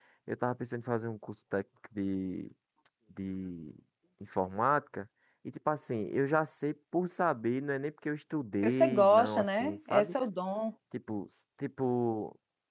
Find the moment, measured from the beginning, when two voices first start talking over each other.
8.6 s

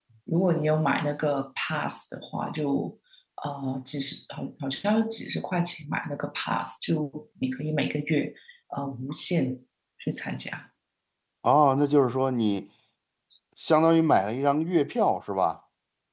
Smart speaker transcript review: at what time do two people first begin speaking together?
none

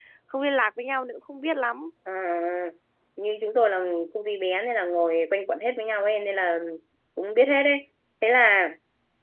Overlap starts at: none

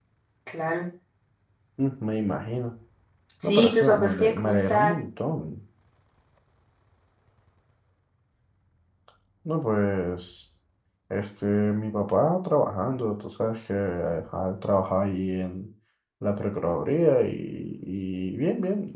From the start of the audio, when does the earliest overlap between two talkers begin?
3.4 s

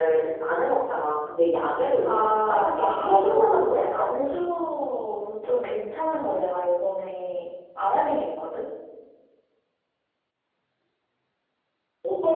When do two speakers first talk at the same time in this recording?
2.0 s

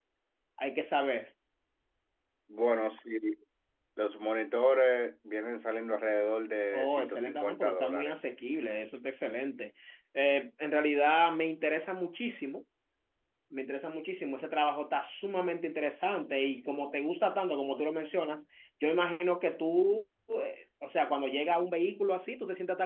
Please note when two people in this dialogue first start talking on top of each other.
6.7 s

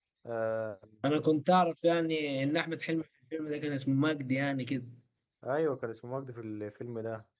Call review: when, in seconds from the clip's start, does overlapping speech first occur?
none

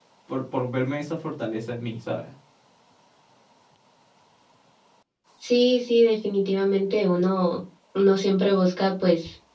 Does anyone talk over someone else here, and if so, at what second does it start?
none

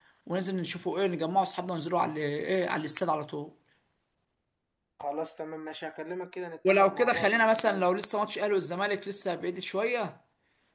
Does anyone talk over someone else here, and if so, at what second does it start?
6.7 s

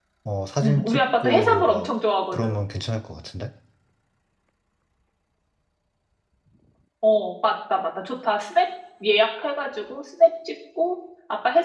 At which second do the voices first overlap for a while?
0.6 s

